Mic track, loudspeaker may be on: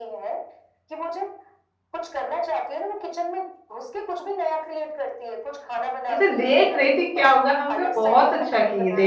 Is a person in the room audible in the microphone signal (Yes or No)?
Yes